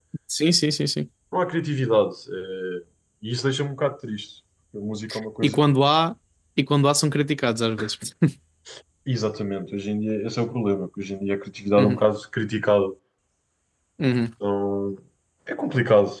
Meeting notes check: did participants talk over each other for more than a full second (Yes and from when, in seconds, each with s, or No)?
No